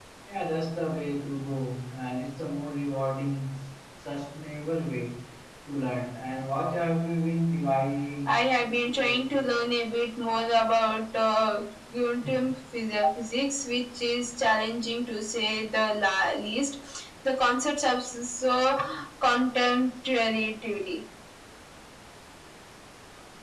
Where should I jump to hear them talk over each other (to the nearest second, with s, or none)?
8 s